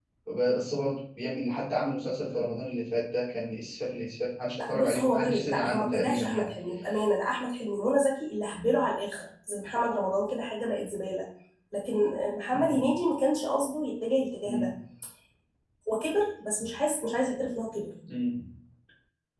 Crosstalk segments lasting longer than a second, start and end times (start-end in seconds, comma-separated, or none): 4.7-6.5